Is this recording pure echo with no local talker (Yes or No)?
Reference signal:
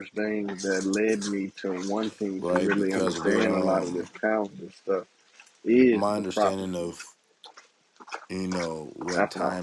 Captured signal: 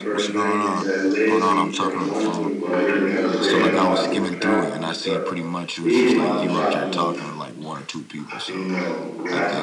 No